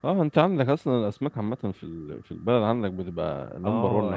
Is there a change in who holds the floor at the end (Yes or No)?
Yes